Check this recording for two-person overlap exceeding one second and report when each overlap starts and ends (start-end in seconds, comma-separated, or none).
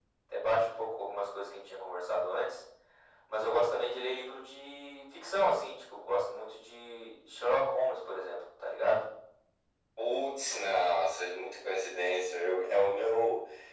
none